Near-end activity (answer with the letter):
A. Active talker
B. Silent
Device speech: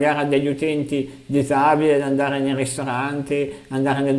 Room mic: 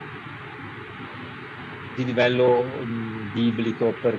A